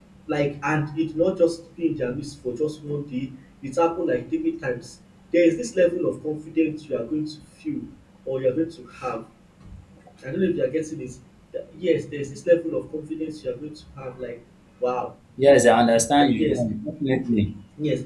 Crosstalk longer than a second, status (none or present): none